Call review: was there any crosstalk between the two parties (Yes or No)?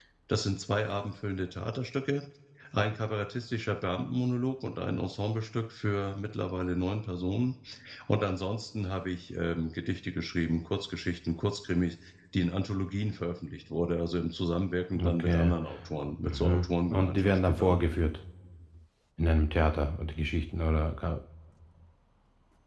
Yes